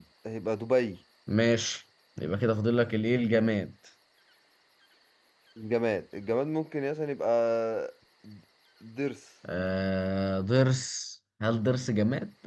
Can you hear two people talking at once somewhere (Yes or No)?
No